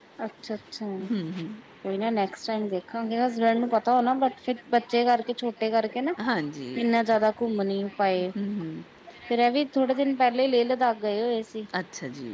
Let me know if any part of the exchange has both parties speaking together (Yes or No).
No